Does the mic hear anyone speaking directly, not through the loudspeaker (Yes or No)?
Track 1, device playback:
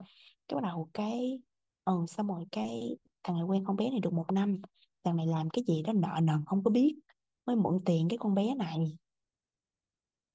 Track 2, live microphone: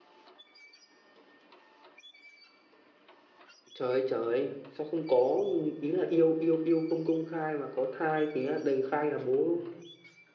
Yes